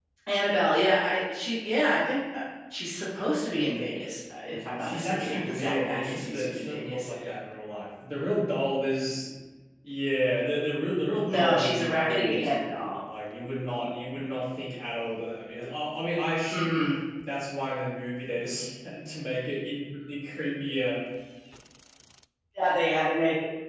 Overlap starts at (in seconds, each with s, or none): 4.8 s